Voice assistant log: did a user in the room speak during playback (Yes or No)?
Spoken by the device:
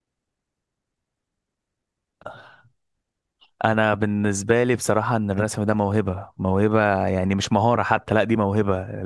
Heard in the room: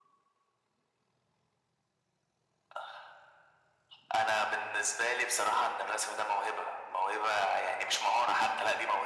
No